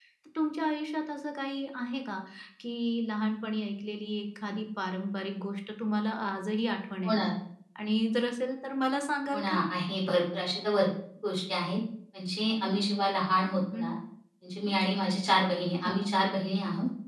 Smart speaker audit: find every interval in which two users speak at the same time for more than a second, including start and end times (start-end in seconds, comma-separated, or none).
none